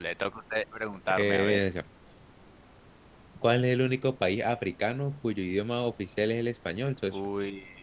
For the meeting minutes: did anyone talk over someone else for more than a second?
No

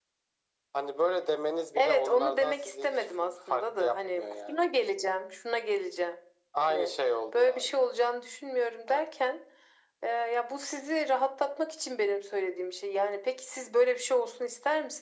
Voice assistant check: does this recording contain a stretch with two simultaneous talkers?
Yes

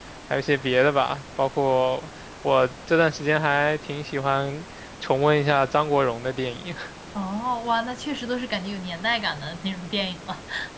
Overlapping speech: No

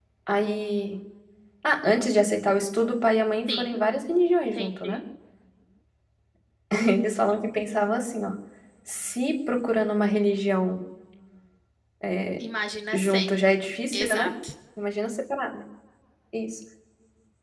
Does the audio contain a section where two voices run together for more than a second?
No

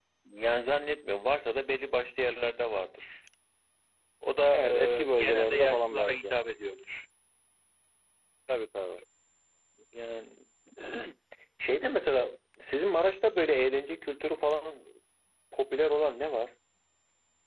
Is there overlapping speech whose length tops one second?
Yes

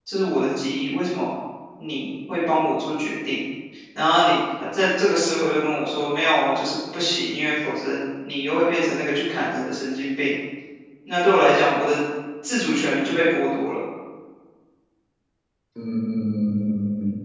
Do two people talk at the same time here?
No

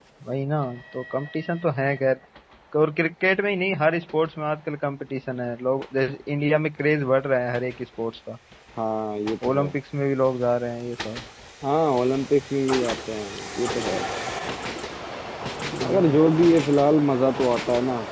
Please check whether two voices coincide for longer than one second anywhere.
No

